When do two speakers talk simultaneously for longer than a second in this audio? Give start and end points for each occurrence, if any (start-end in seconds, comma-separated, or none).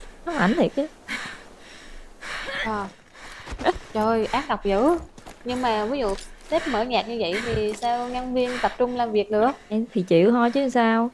none